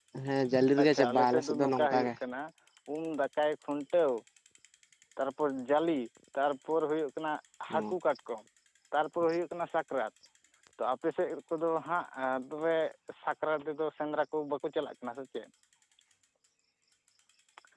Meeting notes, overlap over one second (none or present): present